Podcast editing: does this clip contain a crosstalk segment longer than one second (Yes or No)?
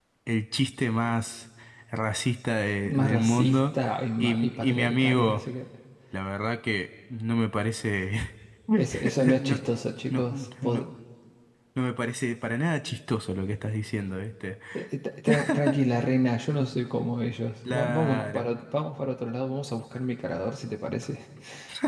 Yes